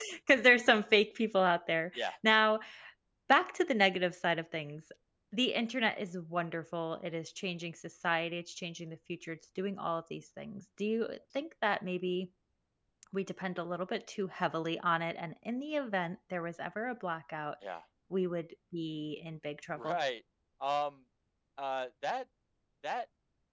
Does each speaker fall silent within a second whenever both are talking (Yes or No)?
Yes